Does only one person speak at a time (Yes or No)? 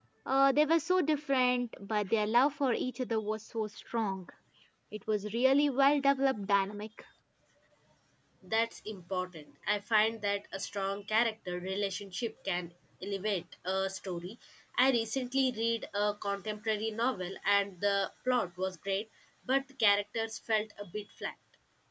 Yes